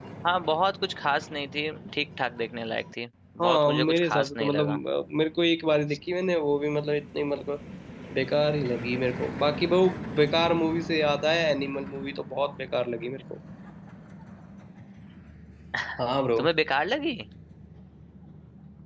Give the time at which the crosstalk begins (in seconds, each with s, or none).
3.4 s